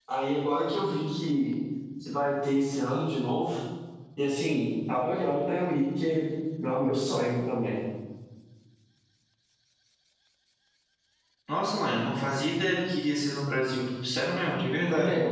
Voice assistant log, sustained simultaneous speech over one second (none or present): none